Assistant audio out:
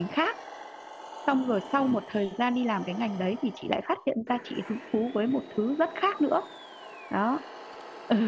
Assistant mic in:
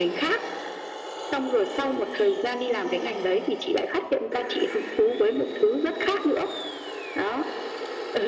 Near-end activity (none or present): none